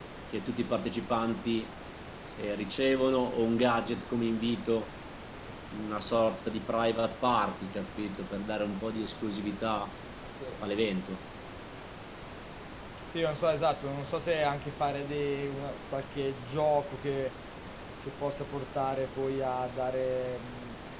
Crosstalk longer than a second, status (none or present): none